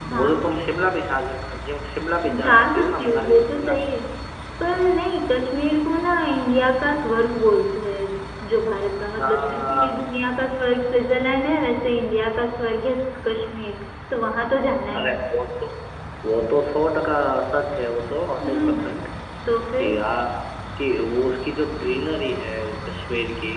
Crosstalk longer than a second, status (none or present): present